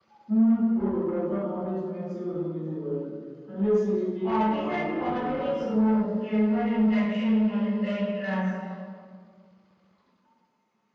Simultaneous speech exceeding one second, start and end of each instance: 4.2-5.5

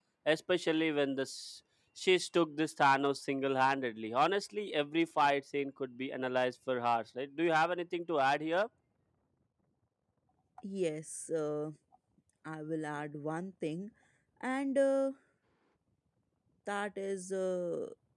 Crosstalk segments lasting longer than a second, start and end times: none

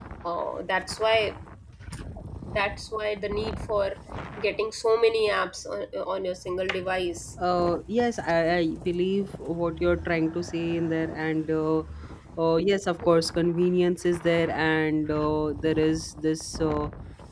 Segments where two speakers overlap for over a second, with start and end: none

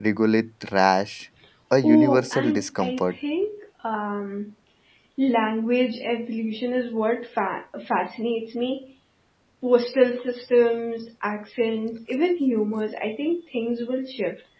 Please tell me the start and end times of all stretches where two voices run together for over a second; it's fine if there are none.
1.8-3.1

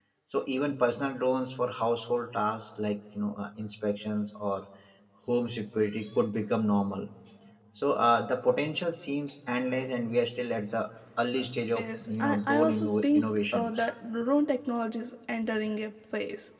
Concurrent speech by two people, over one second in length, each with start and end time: 11.8-13.7

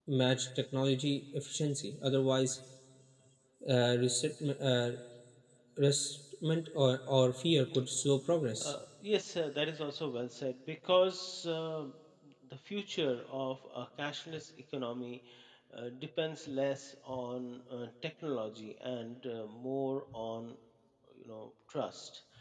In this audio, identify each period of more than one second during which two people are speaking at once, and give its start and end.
none

